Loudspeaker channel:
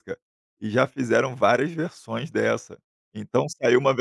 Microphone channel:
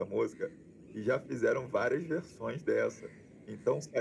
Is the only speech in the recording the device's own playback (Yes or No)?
Yes